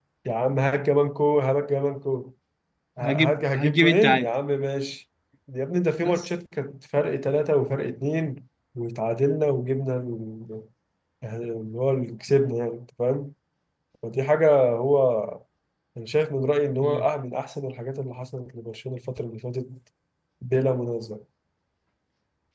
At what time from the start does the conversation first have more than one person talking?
3.0 s

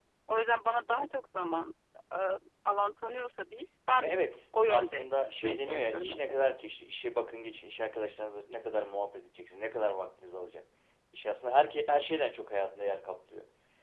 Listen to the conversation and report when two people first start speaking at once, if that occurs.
4.7 s

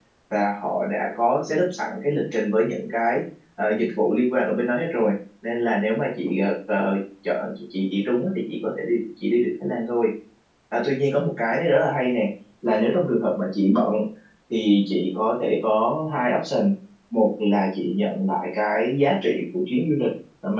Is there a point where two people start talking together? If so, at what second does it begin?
none

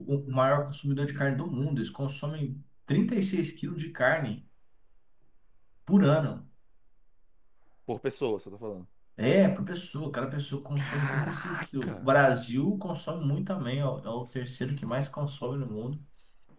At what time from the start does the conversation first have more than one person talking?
10.8 s

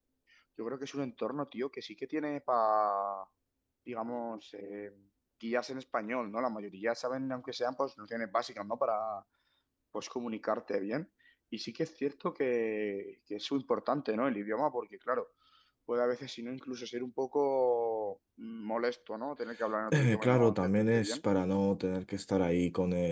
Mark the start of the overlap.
19.9 s

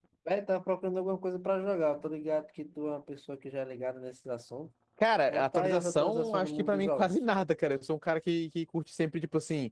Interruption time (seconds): 5.3 s

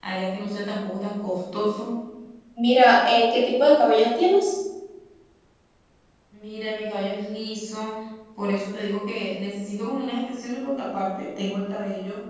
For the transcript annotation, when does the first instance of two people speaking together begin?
none

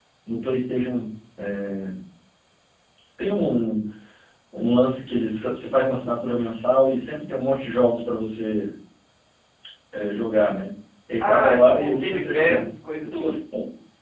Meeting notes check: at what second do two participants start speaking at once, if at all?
11.2 s

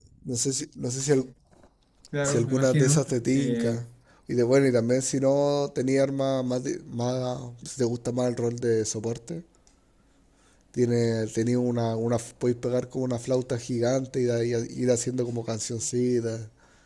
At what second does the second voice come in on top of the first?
2.2 s

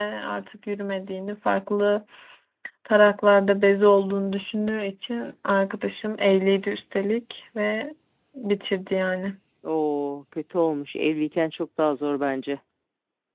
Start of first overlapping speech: none

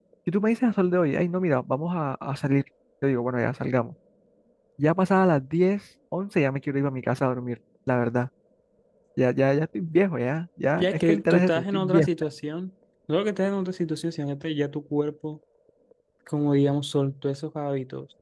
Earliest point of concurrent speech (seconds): 10.8 s

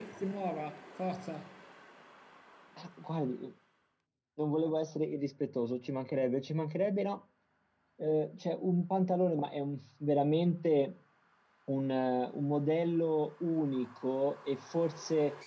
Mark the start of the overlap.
none

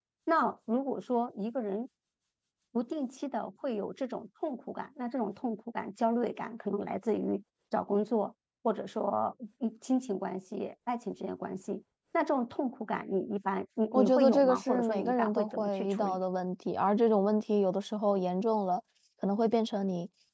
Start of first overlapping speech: 13.9 s

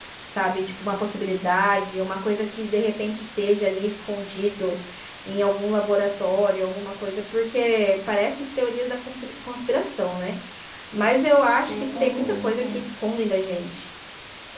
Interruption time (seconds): 11.7 s

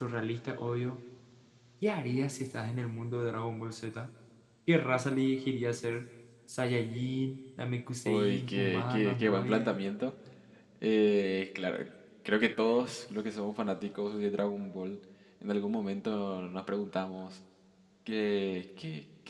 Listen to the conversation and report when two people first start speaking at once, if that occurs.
8.1 s

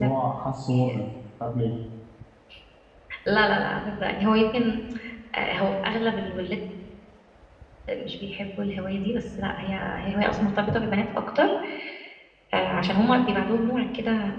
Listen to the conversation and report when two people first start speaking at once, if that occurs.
none

